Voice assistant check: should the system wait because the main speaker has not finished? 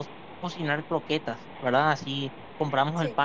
Yes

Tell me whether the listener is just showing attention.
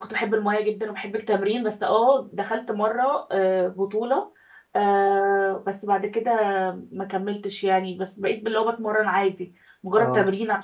Yes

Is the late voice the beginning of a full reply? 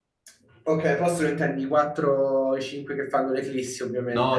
Yes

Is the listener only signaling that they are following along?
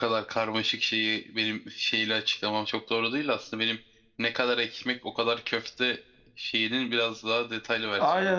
No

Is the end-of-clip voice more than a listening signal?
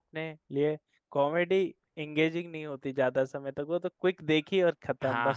Yes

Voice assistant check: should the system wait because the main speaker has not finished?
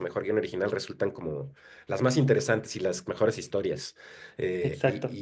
Yes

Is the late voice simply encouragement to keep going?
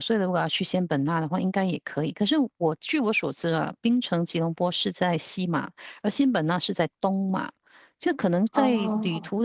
Yes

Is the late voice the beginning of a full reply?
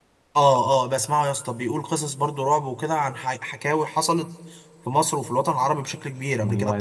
No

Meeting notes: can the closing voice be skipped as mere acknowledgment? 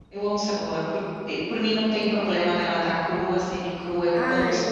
No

